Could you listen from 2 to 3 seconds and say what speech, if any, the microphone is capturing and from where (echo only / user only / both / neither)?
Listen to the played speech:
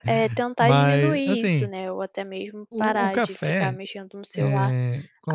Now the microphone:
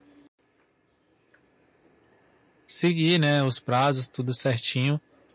user only